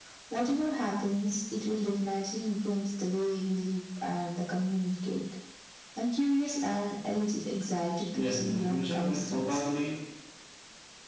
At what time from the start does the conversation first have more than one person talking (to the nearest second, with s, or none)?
8 s